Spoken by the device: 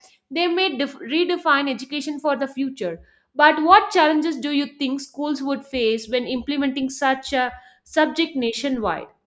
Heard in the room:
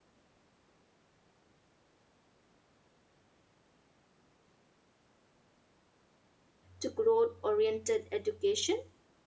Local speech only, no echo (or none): to growth oriented education?